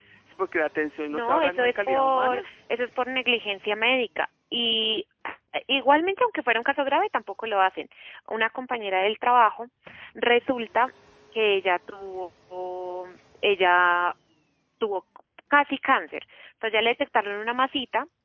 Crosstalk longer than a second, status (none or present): present